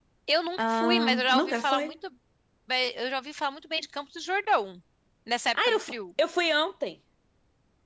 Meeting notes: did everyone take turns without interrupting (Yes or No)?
No